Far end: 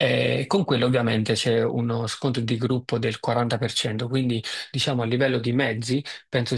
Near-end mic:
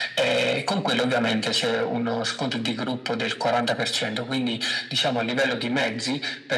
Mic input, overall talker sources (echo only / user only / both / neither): echo only